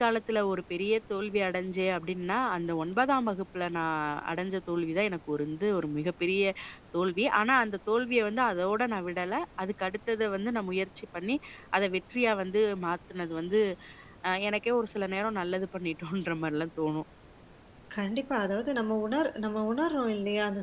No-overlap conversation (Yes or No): Yes